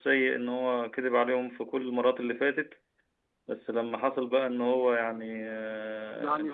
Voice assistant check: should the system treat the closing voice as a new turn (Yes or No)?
No